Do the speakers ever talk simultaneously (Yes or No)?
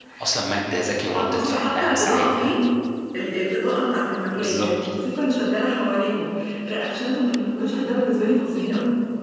Yes